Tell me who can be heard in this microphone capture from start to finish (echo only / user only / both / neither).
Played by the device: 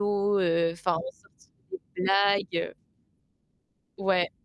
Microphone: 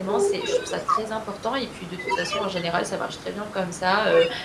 both